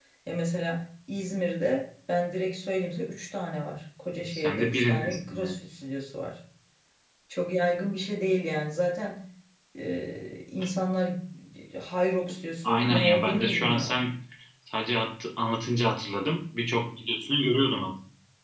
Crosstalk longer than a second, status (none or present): present